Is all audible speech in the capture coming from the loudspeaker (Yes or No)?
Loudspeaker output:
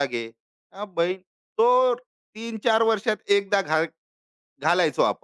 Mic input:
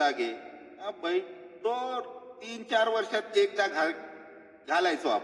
Yes